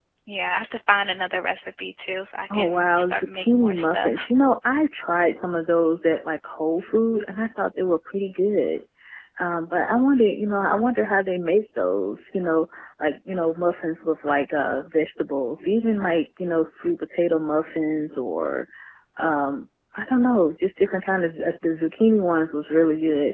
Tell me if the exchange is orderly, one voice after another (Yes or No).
No